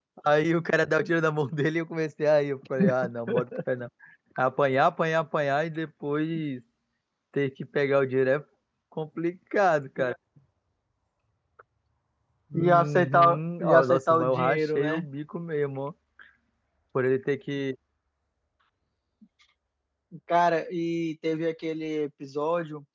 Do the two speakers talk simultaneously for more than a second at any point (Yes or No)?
Yes